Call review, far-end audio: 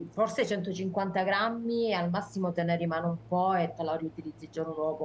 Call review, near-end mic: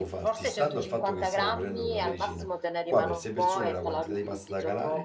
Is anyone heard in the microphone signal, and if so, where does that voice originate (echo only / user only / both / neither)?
both